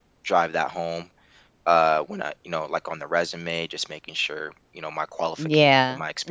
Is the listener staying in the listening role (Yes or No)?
No